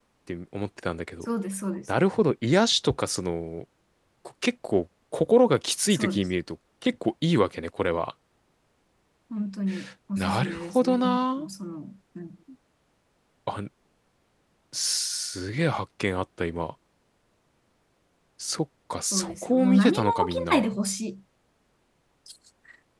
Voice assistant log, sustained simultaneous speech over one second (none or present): present